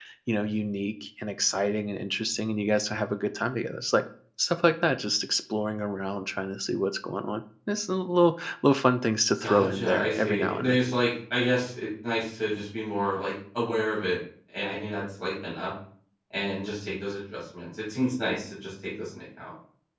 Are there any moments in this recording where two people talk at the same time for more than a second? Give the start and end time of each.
9.4-10.8

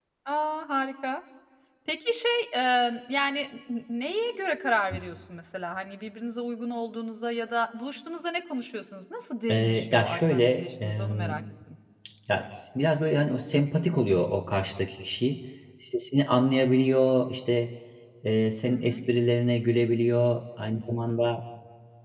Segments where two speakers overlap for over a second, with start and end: 9.5-11.3

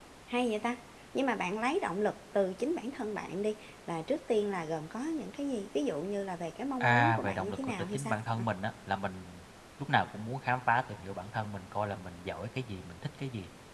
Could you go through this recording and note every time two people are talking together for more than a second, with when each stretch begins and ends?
6.8-8.4

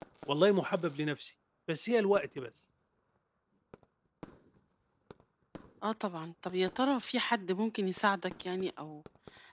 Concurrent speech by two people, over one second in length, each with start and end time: none

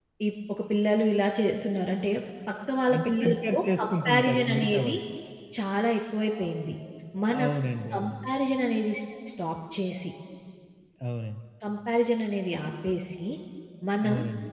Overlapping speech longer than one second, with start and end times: 2.9-5.0

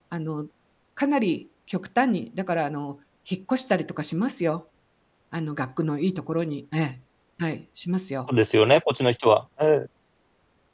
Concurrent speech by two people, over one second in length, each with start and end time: none

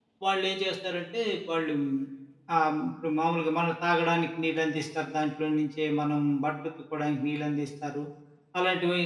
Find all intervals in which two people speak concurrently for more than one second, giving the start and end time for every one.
none

